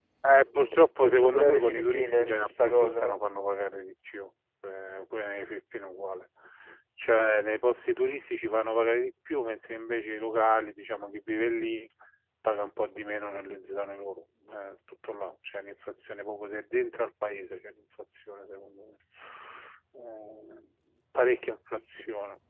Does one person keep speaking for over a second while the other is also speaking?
Yes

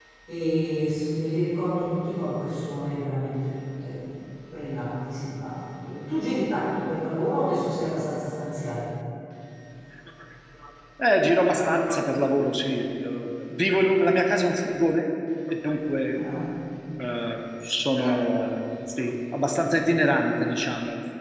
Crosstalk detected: No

